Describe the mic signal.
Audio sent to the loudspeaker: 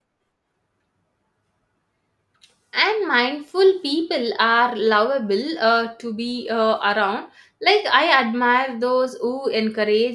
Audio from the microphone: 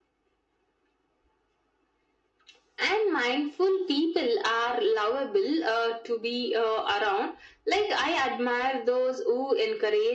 echo only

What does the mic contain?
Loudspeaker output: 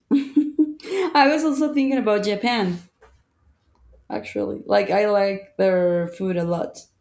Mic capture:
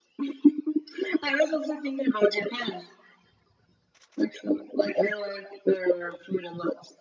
echo only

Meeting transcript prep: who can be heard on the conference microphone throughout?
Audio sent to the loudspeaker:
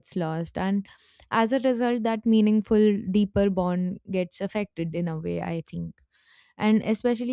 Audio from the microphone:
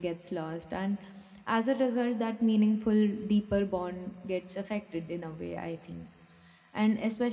echo only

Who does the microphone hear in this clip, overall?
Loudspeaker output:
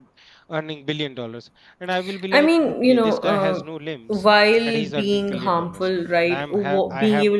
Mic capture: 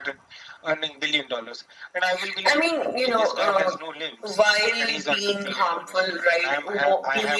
echo only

